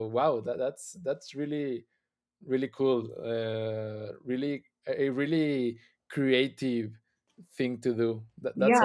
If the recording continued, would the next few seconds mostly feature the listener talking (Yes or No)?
Yes